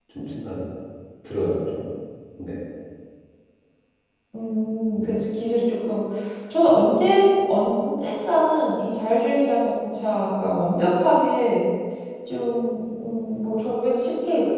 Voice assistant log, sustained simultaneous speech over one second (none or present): none